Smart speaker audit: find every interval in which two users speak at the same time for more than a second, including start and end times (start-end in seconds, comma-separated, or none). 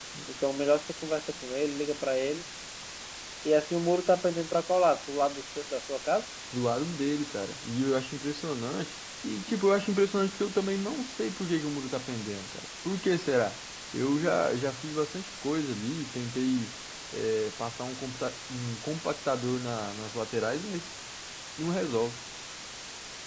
none